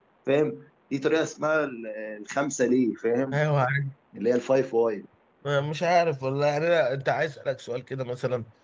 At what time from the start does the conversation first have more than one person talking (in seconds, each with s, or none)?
none